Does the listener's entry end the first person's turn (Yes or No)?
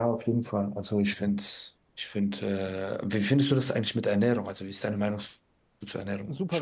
Yes